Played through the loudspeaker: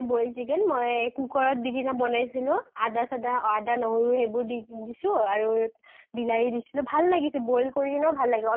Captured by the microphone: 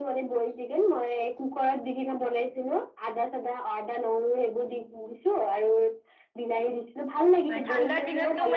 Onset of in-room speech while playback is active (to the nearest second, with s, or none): 8 s